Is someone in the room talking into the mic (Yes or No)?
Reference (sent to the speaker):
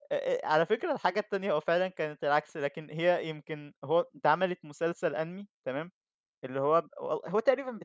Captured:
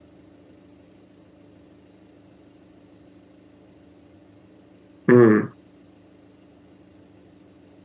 Yes